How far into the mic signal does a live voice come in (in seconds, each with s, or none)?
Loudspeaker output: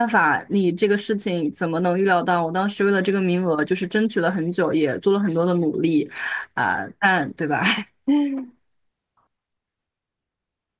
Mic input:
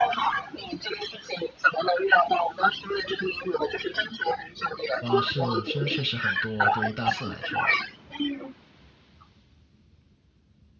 5.0 s